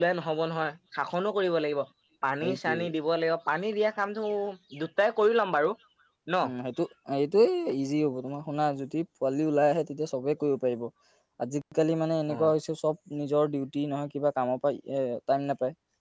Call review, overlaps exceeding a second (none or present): none